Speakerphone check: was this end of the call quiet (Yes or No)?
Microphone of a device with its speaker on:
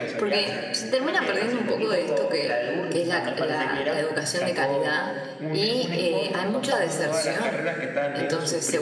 No